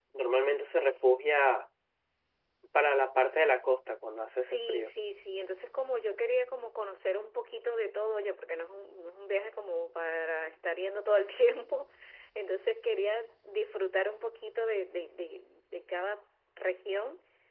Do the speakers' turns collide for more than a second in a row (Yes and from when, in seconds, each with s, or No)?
No